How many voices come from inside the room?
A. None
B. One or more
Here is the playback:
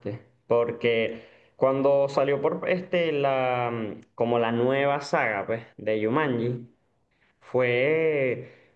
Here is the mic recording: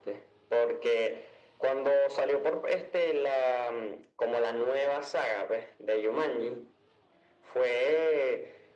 A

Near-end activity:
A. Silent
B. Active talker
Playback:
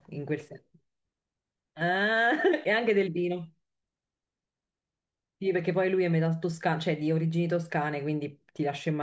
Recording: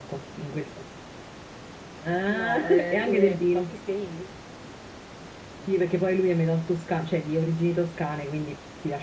B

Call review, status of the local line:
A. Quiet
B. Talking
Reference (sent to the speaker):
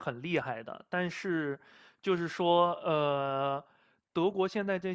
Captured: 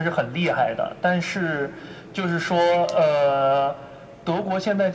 A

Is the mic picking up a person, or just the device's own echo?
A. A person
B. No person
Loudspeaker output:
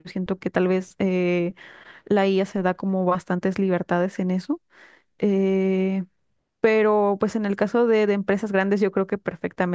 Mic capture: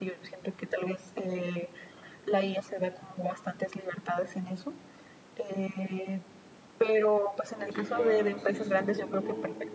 A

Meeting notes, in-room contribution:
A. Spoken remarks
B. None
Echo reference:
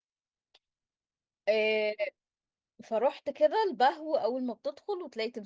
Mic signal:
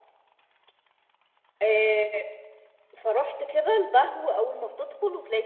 B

